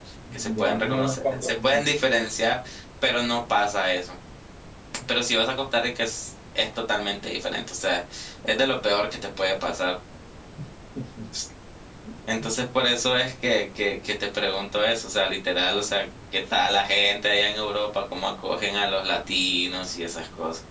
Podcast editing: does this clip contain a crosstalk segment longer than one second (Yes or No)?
Yes